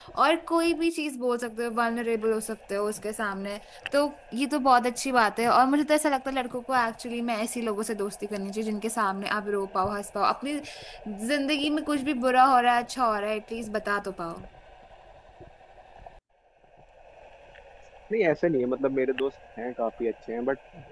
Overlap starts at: none

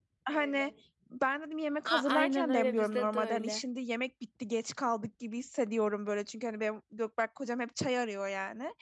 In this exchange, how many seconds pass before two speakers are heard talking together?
1.9 s

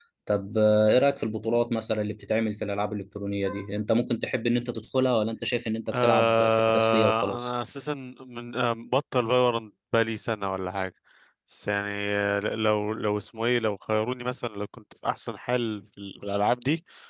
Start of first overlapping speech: 5.9 s

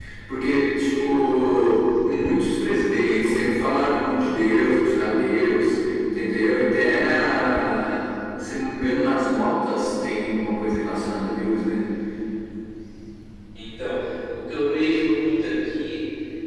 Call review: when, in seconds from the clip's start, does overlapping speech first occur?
none

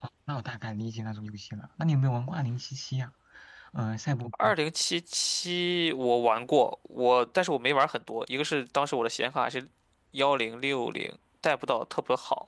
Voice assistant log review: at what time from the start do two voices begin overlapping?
none

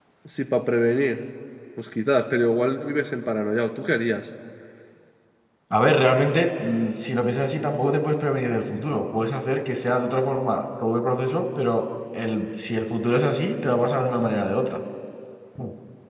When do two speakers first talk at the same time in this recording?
none

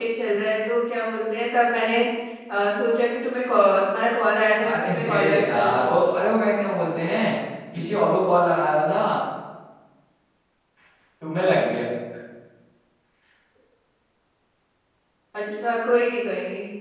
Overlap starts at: 4.6 s

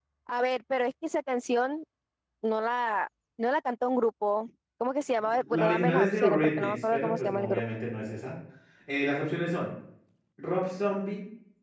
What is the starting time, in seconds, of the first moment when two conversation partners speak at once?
5.2 s

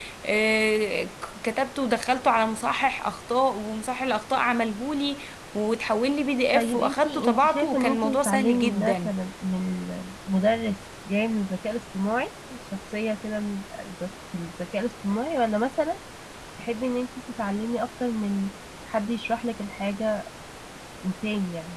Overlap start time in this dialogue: 6.5 s

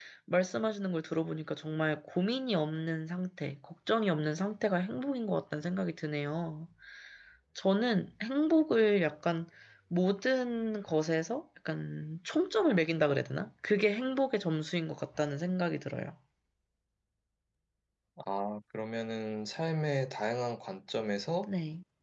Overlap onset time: none

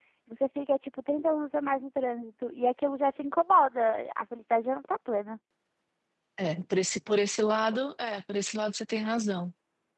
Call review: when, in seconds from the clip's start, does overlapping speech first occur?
none

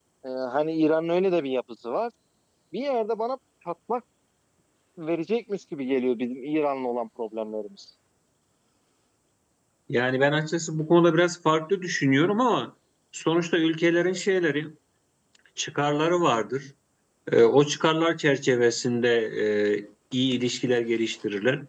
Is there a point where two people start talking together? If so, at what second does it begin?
none

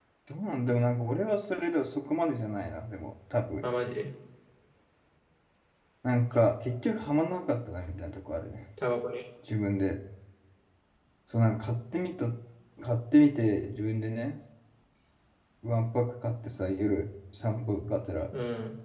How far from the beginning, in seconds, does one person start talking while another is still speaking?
none

